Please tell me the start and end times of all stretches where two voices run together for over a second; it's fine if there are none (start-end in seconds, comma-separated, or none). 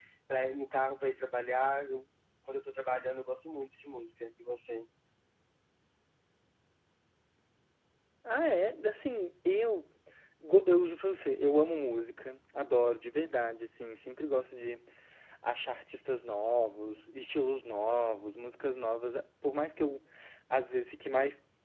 none